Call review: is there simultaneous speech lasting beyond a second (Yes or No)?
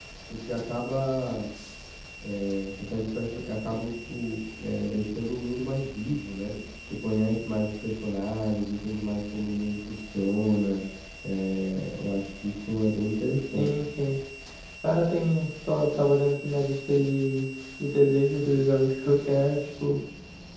No